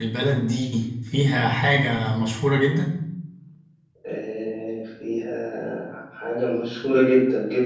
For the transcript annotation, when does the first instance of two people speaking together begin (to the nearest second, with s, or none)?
none